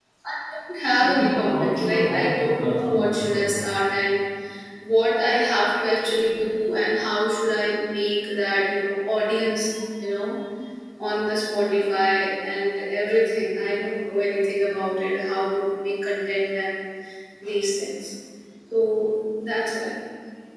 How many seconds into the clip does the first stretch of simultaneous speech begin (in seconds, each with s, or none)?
0.9 s